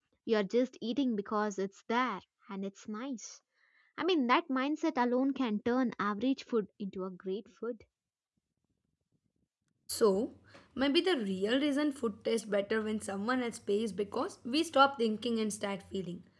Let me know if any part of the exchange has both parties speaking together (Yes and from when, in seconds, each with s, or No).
No